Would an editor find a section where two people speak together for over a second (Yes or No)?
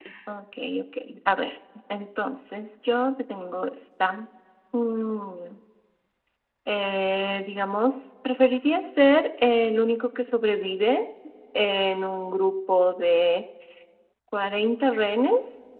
No